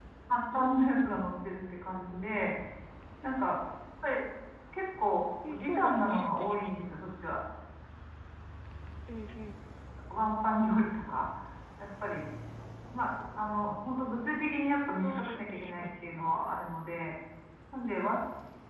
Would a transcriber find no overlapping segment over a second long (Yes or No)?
No